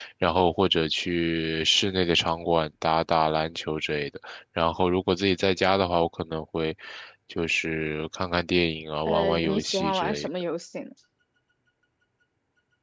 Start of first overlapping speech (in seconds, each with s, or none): 9.1 s